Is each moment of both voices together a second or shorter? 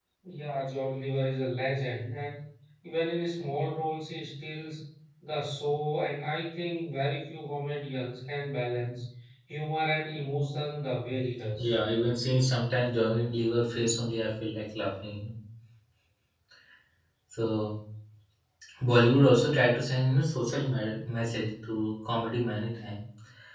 Yes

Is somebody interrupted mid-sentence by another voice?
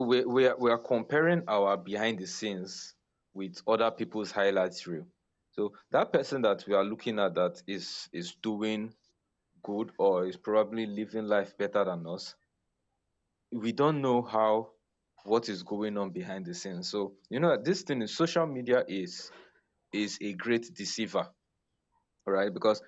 No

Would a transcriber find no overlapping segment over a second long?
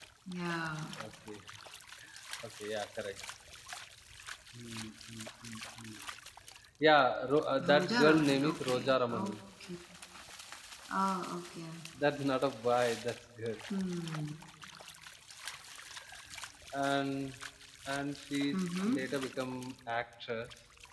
No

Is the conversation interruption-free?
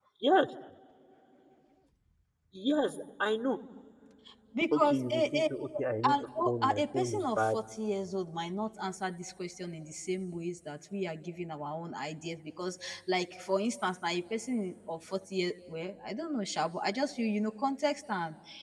No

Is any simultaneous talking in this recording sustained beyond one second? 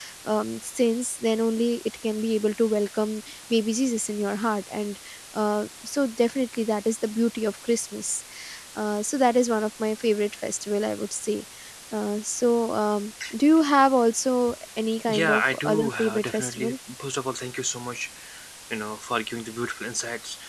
Yes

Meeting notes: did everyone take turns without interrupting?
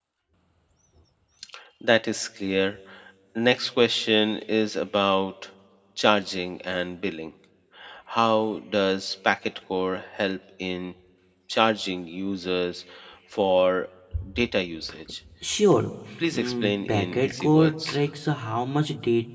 No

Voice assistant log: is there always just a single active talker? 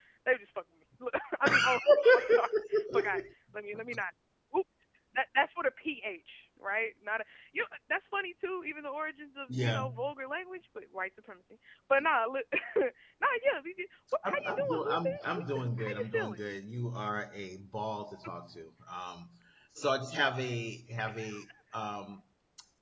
No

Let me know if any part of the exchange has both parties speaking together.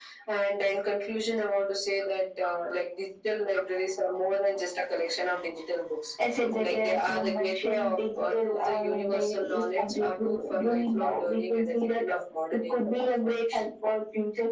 Yes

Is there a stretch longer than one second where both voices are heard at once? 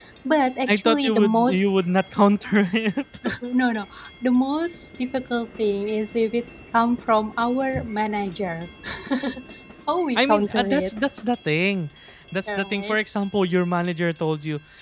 Yes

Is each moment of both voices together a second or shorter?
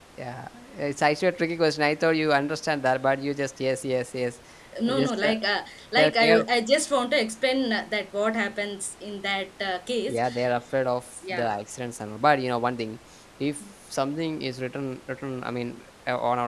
Yes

